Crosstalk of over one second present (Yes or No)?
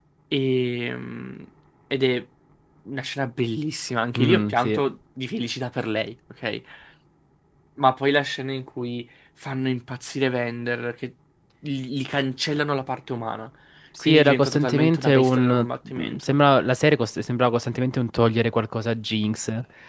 Yes